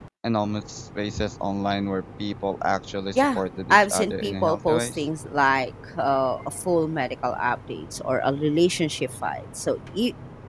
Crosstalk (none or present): present